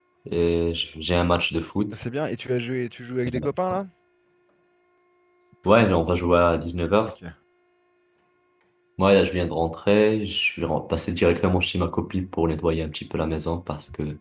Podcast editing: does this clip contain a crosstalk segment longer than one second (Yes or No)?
No